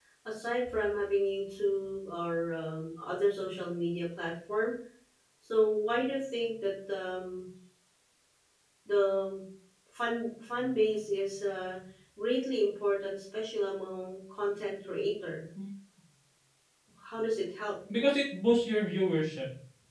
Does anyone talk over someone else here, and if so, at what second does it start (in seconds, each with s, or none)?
none